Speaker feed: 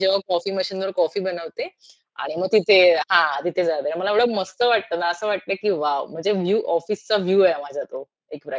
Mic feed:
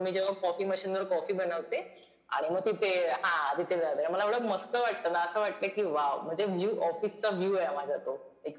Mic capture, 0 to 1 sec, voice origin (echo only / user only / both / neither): echo only